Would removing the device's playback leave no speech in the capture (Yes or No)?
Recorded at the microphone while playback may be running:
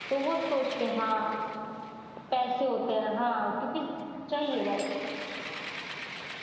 Yes